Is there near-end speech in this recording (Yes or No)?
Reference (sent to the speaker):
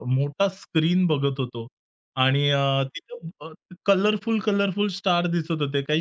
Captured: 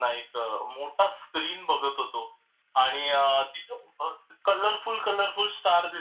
No